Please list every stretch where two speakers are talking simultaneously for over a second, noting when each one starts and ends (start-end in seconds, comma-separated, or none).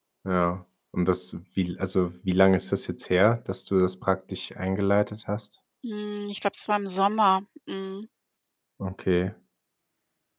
none